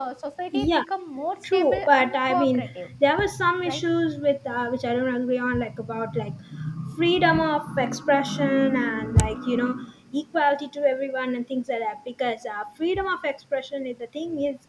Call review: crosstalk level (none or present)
present